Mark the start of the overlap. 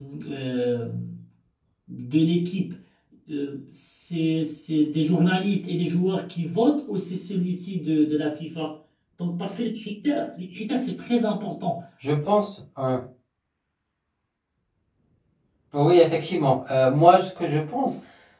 none

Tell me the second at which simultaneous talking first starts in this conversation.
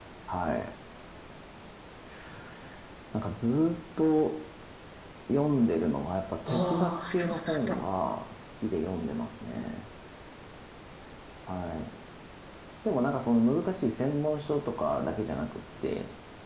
6.5 s

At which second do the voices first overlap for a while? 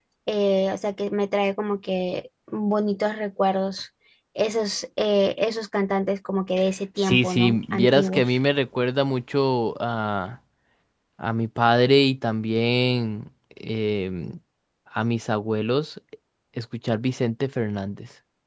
7.0 s

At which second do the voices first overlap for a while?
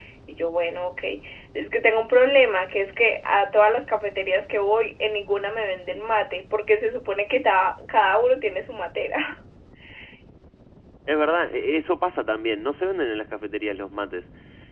none

